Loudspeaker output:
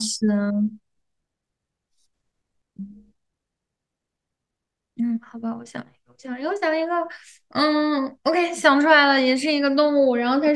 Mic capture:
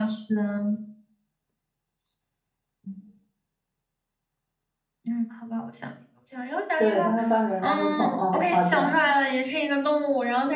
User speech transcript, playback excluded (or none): 对，他会翻别人垃圾桶。哦，好这样，